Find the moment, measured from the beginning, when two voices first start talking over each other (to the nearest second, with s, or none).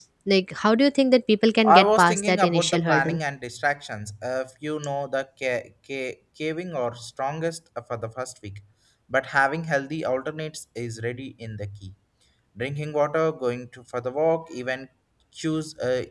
2 s